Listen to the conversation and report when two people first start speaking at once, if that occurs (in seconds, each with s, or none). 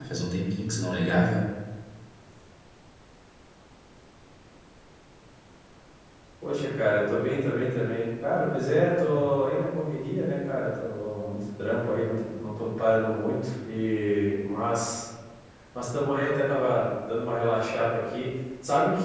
none